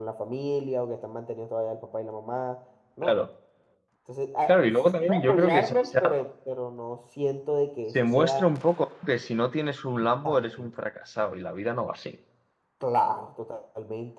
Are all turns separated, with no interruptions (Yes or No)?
No